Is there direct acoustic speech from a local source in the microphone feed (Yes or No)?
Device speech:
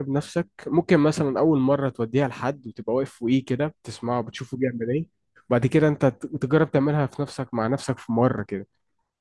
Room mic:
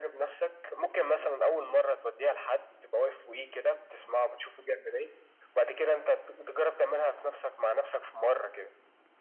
No